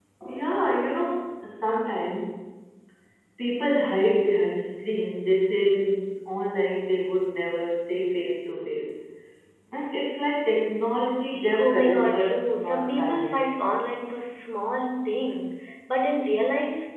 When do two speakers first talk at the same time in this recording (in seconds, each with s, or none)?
11.5 s